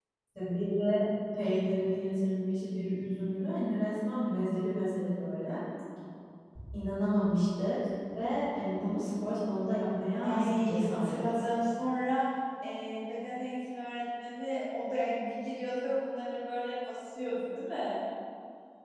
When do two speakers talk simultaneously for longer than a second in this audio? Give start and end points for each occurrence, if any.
10.2-11.4

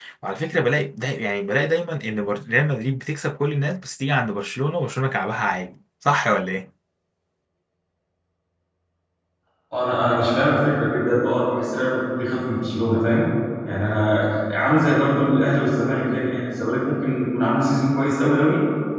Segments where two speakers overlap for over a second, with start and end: none

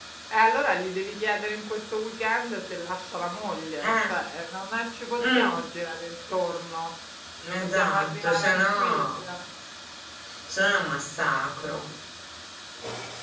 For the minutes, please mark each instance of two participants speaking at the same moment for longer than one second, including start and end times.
7.6-9.0

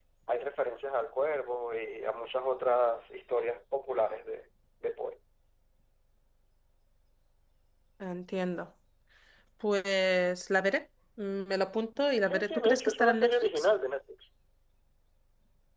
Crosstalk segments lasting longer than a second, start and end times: 12.2-13.7

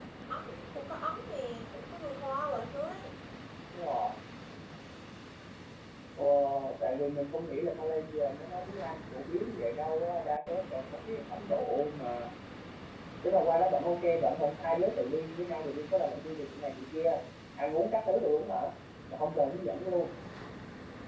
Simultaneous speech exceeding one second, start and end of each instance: none

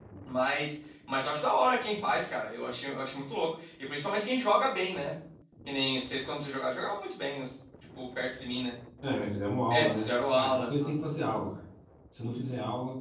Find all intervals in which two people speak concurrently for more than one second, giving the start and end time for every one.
9.7-10.9

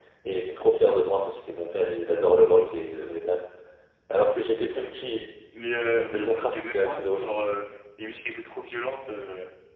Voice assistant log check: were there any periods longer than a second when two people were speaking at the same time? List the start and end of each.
6.1-7.3

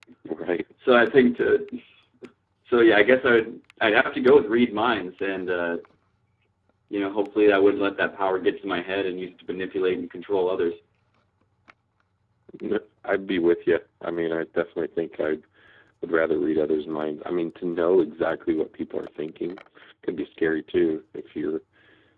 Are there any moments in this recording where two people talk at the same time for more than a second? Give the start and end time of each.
none

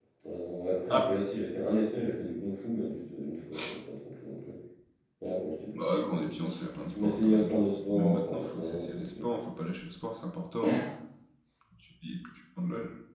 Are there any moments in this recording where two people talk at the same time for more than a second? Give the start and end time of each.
6.9-9.1

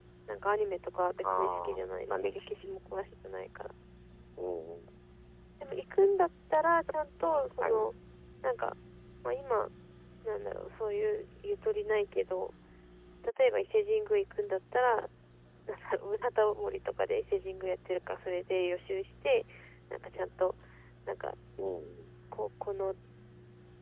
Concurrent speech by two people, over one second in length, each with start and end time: 1.2-2.8

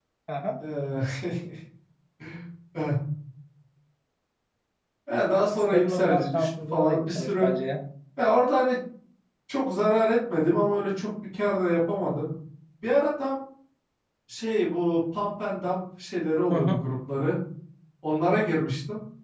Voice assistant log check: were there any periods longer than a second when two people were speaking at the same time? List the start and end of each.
5.7-7.5

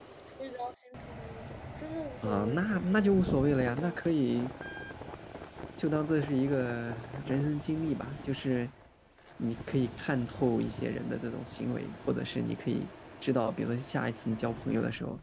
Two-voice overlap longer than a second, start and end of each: 2.2-4.0

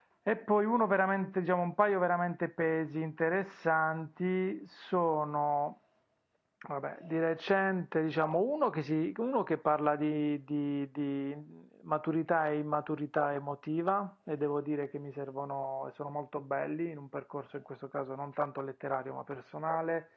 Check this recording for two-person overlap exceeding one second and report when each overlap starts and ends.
none

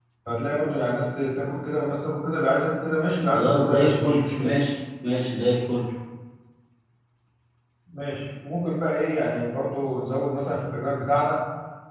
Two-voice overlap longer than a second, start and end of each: 3.3-4.5

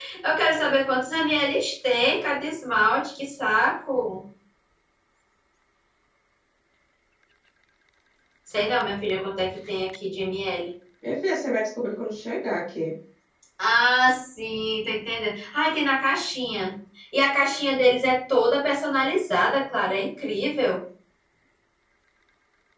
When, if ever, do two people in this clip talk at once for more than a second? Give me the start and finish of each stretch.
none

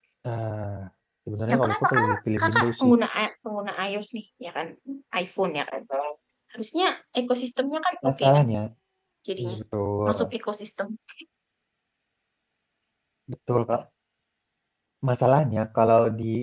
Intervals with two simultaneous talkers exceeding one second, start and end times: 1.5-2.9

